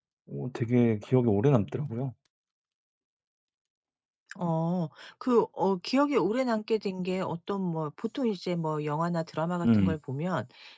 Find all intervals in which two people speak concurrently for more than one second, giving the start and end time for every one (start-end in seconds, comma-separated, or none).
none